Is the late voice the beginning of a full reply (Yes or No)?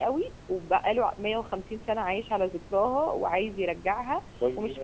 No